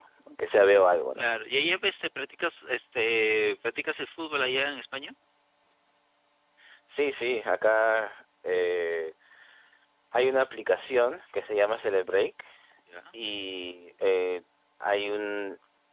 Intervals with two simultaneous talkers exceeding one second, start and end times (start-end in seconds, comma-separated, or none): none